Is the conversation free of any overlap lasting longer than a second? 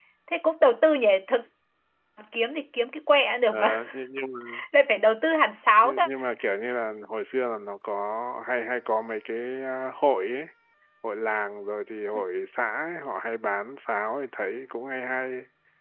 Yes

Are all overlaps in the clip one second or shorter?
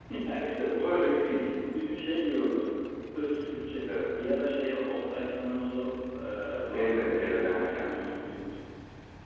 No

